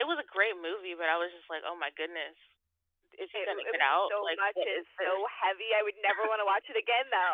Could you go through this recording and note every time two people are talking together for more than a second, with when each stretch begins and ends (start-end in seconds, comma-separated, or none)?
3.3-5.3